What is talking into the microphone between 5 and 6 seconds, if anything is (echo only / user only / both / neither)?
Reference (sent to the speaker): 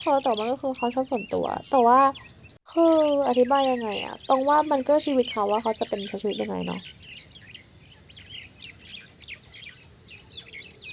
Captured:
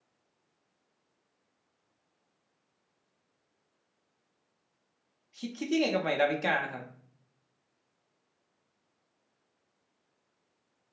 user only